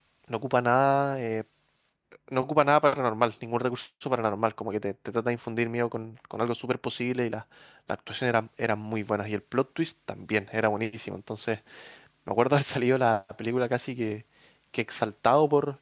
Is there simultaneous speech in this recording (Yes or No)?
No